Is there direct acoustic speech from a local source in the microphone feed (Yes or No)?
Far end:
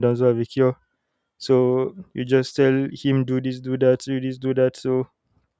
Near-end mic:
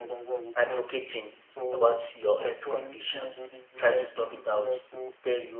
Yes